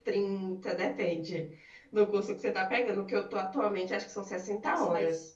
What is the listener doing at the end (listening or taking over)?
taking over